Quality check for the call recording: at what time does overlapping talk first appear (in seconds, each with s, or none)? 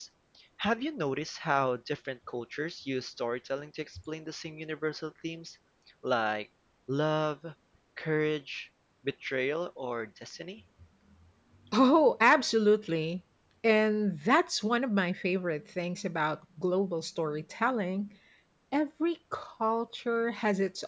none